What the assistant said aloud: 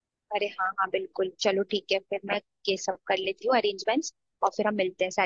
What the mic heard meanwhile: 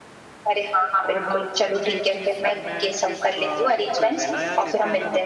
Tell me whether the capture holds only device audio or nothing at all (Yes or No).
No